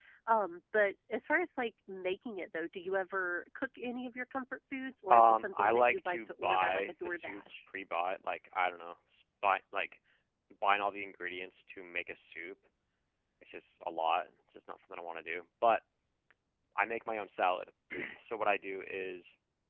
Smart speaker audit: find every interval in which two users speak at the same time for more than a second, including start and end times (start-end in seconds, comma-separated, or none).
5.1-7.4